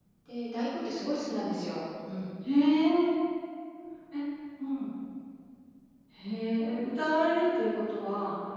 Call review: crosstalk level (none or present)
none